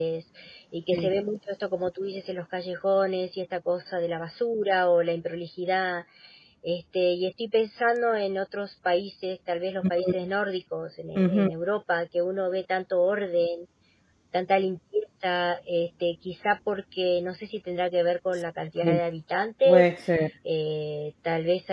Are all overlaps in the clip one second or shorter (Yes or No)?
Yes